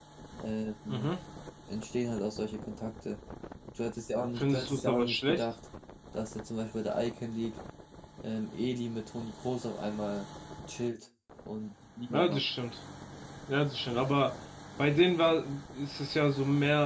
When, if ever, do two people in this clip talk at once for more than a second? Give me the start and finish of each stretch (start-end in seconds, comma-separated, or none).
4.2-5.4